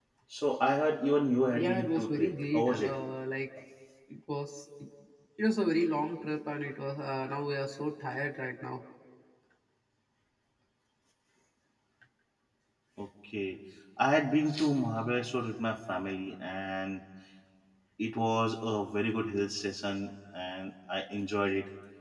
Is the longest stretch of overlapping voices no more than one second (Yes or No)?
No